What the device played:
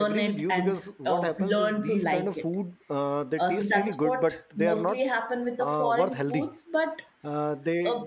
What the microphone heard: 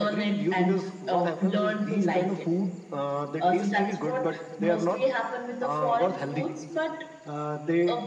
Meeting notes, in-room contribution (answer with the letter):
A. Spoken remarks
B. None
B